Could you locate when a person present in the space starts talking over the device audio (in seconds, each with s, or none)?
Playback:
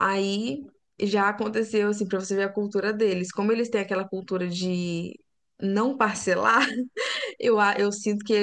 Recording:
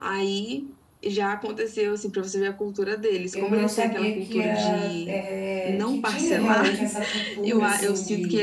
3.3 s